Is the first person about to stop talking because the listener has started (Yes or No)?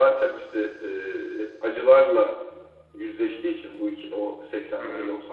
No